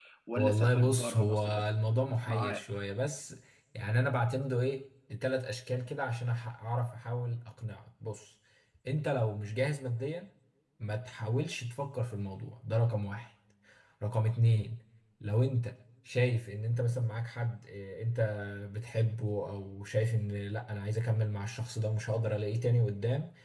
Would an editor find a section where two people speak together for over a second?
Yes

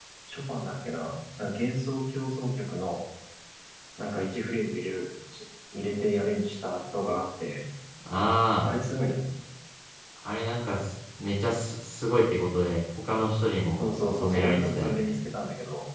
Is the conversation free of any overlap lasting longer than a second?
No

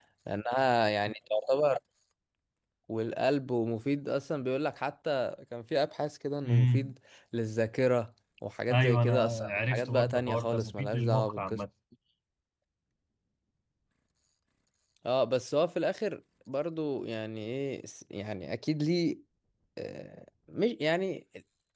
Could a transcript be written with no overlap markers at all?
No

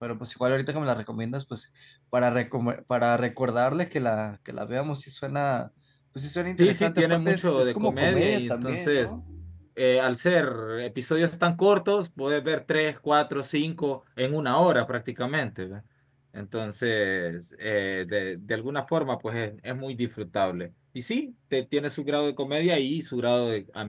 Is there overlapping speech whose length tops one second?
Yes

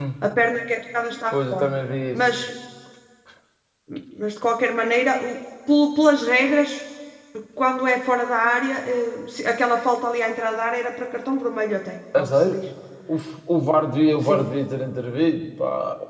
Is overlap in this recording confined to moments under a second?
Yes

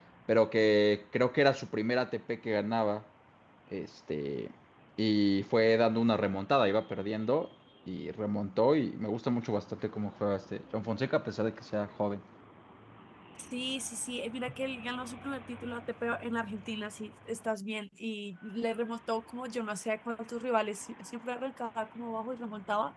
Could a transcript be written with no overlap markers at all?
Yes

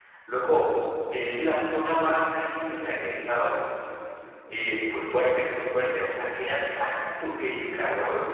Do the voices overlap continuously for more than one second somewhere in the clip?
No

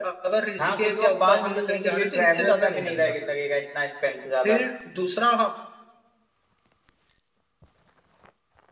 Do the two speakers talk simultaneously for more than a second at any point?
Yes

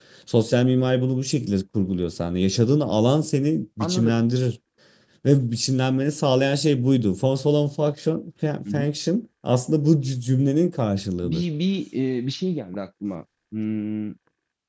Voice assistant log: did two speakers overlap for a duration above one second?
No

